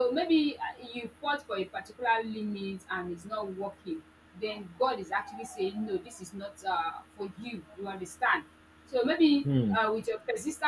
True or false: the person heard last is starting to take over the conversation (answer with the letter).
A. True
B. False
B